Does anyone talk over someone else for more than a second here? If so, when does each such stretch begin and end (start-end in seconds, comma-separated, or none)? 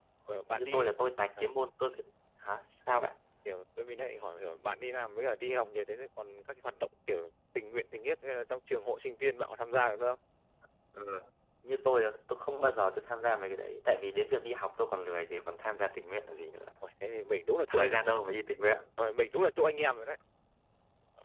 none